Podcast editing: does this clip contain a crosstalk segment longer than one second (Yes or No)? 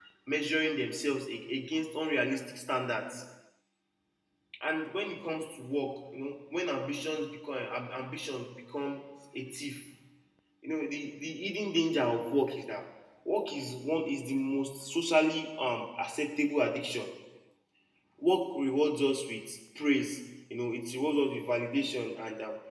No